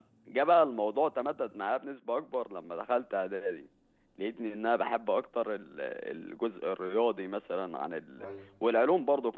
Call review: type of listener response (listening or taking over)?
listening